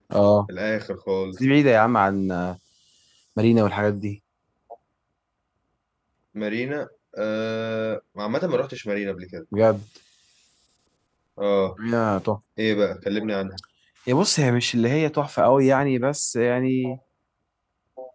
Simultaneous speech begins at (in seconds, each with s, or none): none